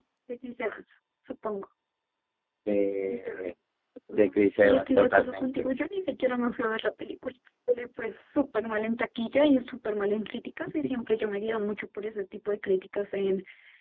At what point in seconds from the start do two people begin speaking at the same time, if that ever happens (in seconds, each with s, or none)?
4.2 s